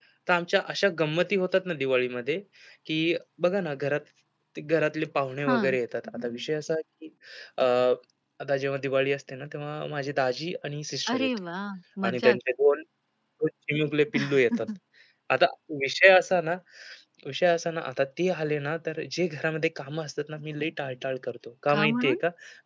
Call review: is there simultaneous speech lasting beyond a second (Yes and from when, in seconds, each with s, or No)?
No